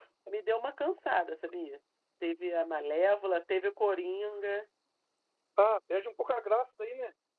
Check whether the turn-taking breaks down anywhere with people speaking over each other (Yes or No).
No